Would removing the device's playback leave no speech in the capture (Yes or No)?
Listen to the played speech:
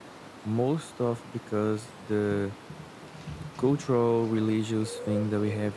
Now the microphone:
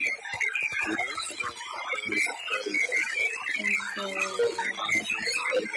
No